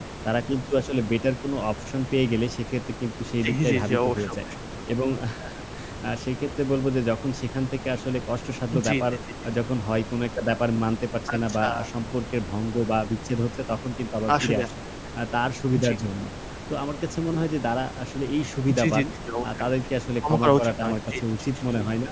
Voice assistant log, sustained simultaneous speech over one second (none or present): present